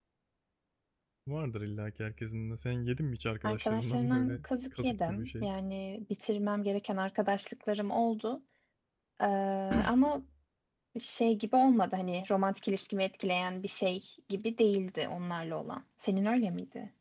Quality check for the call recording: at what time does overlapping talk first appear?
3.4 s

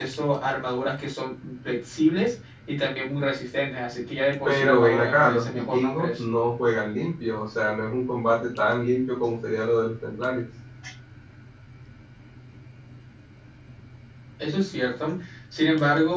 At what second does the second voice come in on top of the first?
4.4 s

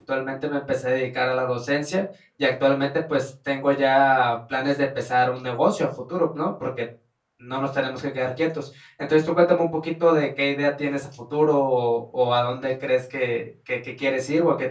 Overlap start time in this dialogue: none

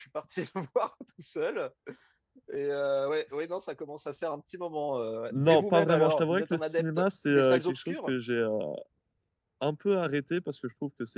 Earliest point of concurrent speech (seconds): 5.3 s

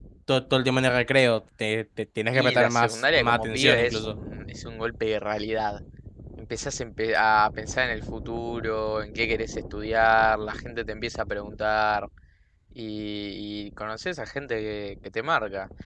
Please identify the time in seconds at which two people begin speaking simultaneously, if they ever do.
2.3 s

